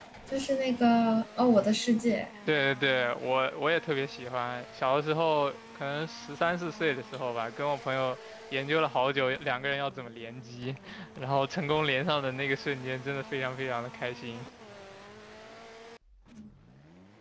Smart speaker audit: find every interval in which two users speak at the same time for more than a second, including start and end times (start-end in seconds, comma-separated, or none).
none